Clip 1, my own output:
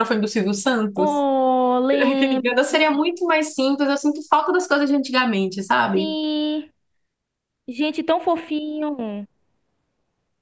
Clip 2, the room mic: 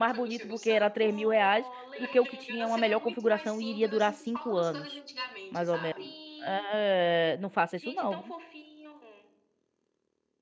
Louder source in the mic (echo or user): user